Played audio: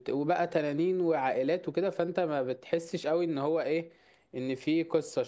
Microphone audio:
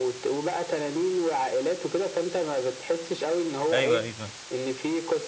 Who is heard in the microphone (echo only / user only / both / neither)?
both